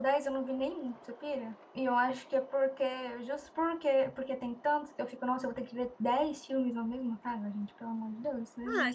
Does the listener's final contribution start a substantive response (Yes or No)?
Yes